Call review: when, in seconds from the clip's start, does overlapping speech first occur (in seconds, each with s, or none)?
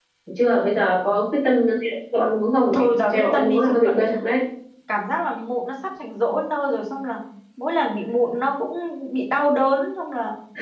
2.7 s